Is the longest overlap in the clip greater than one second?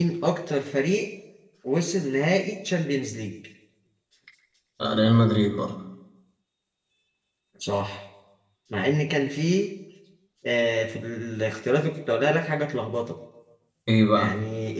No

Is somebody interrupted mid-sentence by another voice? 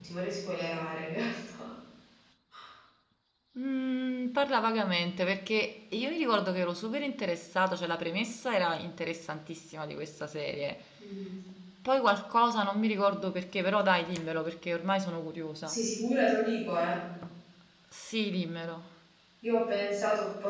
No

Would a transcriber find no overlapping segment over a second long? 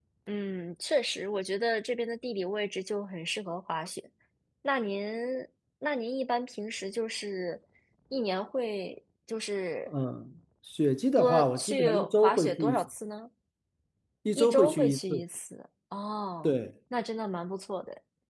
No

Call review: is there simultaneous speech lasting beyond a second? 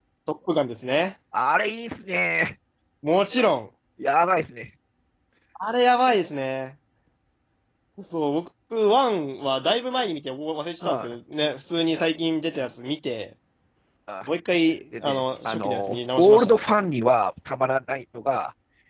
Yes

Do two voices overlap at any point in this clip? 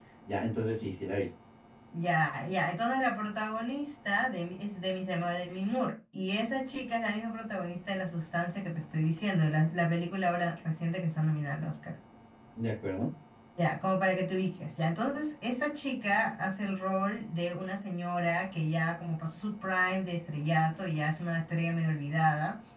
No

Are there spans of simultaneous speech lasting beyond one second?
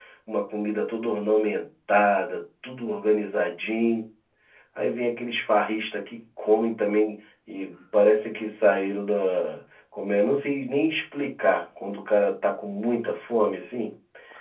No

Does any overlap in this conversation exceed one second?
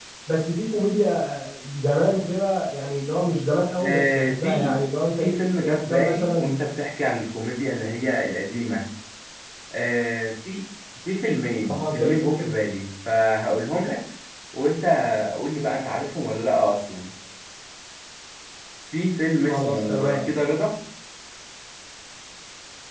Yes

